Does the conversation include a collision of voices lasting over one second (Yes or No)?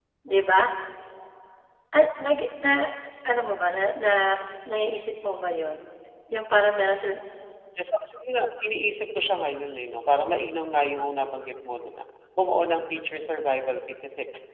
No